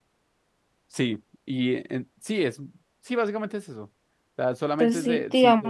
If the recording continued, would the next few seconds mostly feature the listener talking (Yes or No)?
Yes